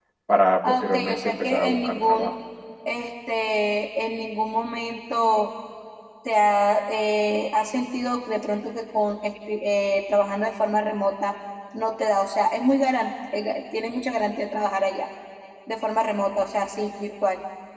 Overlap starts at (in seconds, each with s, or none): 0.6 s